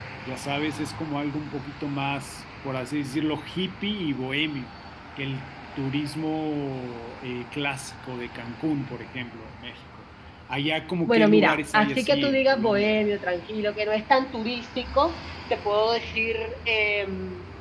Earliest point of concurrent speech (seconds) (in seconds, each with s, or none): 11.1 s